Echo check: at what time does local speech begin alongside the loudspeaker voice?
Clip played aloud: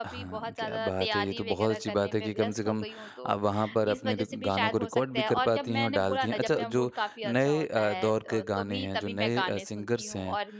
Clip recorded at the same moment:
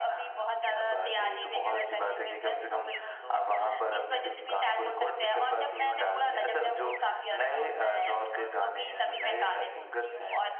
none

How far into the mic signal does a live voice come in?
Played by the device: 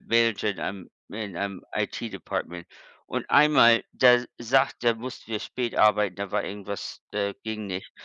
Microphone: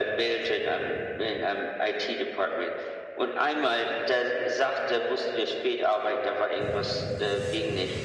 none

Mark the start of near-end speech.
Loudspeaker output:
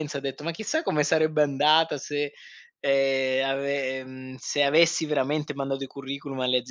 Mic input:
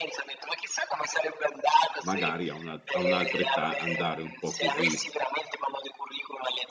2.0 s

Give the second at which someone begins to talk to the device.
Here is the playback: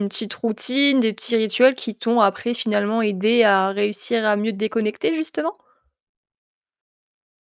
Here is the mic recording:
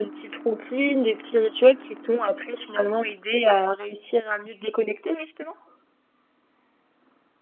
none

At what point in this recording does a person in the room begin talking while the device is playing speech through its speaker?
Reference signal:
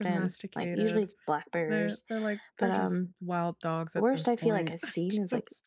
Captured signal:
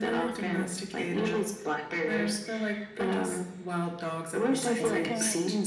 4.7 s

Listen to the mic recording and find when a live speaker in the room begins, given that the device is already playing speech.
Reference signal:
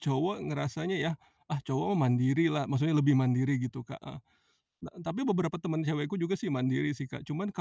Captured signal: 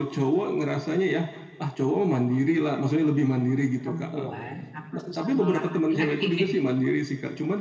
3.8 s

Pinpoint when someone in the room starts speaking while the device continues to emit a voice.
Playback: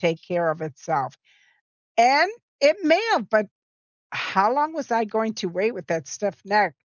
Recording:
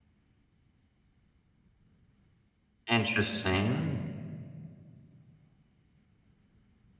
2.9 s

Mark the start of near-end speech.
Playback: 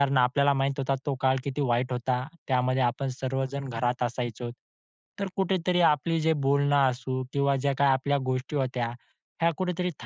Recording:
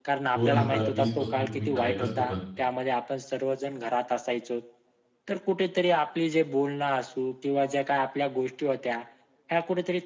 0.4 s

